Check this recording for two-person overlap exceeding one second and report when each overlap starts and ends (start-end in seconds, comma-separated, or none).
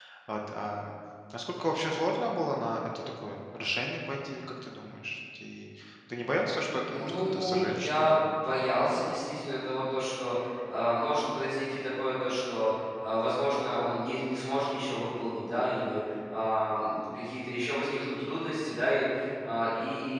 6.9-8.2